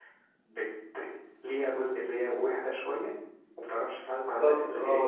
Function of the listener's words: taking over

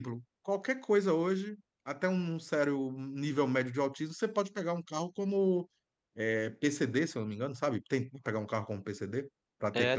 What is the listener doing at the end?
taking over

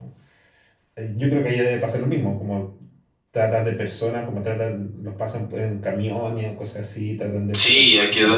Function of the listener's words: taking over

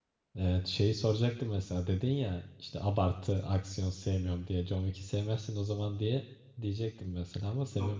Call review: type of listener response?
taking over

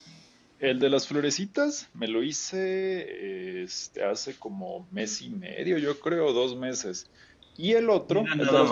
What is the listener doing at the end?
taking over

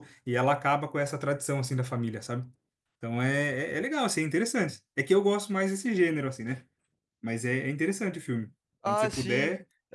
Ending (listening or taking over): taking over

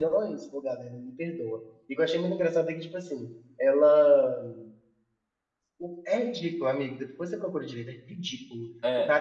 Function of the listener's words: listening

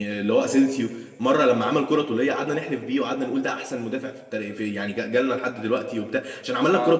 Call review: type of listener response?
listening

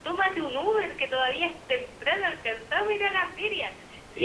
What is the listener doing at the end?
listening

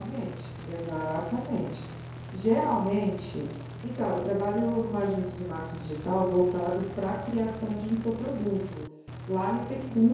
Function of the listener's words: listening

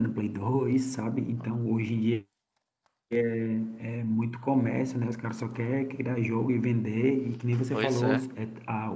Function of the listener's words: listening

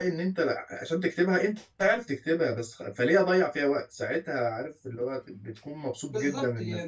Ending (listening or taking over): taking over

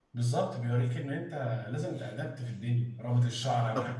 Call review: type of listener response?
listening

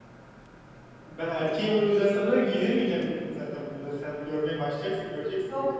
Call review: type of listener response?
taking over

